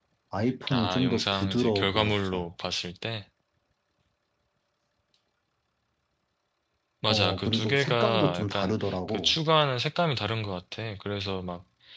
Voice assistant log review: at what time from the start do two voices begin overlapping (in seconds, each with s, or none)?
0.7 s